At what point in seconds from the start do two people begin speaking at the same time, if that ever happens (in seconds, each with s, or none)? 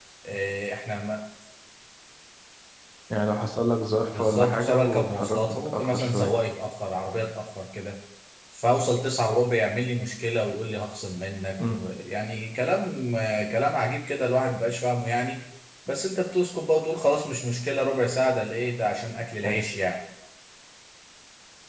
4.1 s